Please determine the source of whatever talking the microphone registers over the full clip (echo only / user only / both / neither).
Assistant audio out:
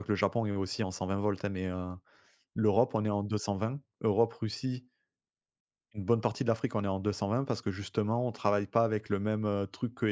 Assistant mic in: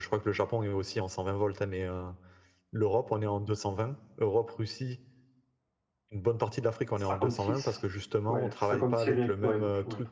both